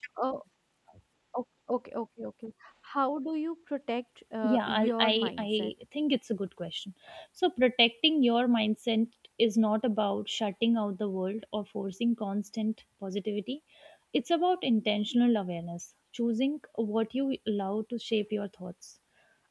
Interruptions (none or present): present